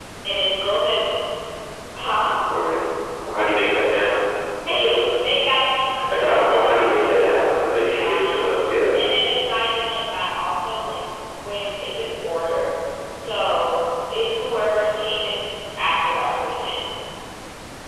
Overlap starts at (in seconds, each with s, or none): 5.9 s